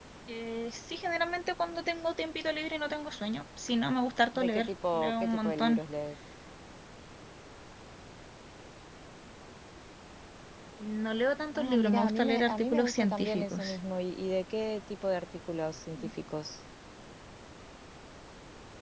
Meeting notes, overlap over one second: present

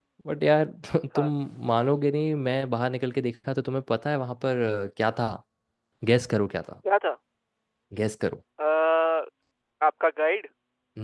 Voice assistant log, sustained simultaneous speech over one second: none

